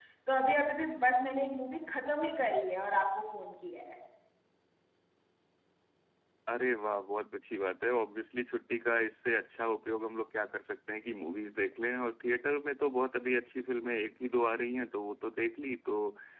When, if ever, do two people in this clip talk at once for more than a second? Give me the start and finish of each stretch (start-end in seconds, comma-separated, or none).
none